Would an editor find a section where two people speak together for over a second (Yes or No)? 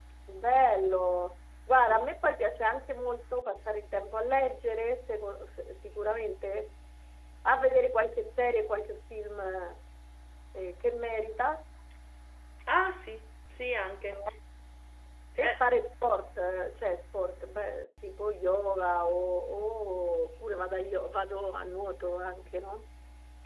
No